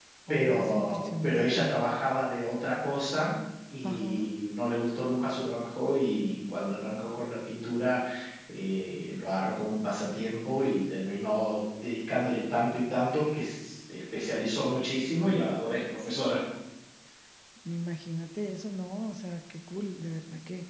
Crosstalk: present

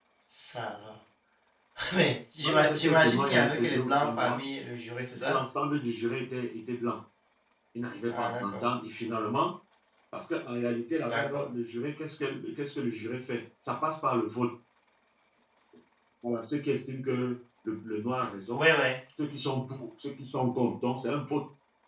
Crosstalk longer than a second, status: present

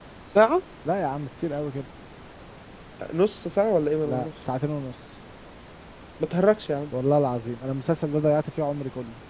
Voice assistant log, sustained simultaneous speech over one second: none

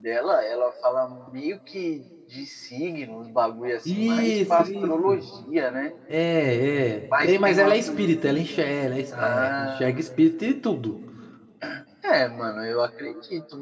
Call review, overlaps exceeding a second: present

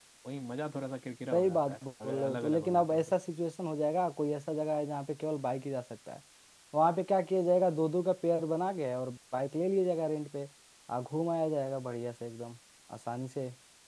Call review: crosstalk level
present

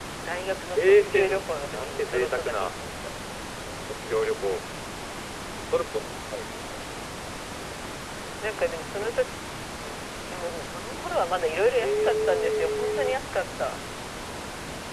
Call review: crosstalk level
present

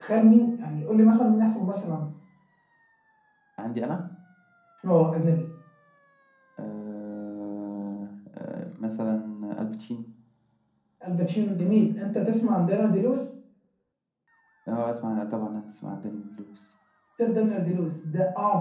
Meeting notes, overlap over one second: none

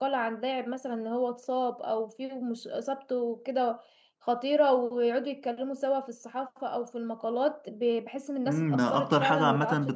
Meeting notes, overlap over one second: present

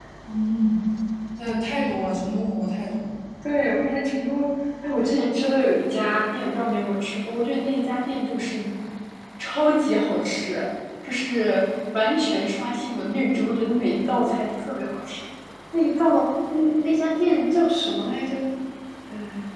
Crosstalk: none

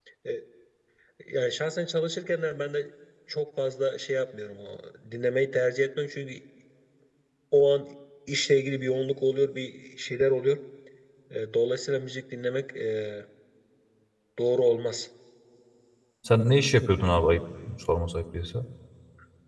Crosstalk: none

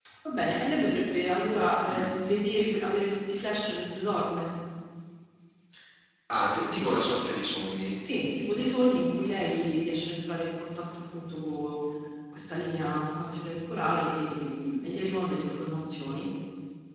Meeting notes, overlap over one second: none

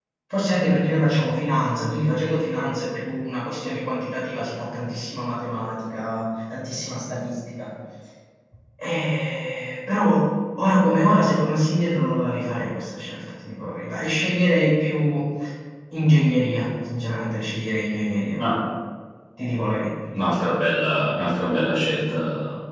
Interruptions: none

